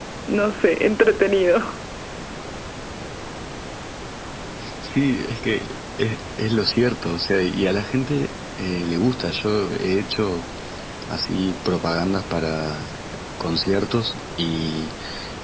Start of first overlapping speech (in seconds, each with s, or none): none